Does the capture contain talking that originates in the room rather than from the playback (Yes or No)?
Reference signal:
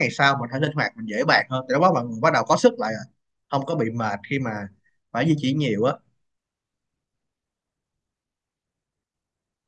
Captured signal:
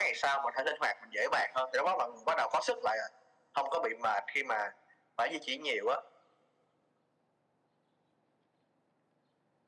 No